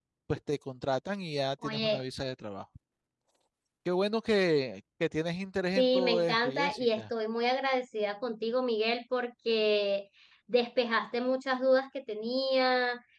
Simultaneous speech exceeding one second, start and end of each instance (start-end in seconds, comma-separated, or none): 5.8-7.1